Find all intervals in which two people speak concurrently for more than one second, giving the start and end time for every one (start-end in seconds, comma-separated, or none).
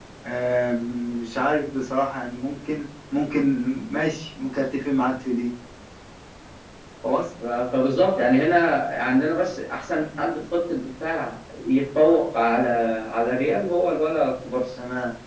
none